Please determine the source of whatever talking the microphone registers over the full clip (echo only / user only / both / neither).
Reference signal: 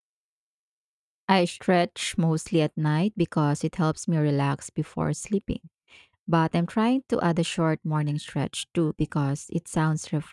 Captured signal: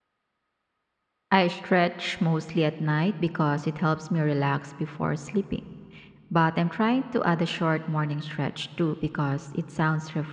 echo only